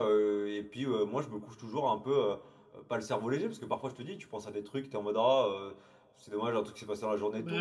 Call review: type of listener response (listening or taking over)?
taking over